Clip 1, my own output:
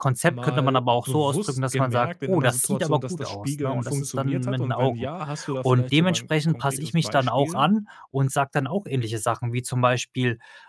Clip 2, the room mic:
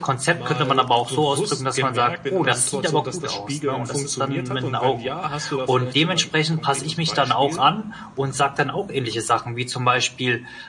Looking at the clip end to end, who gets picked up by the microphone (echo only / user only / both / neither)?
echo only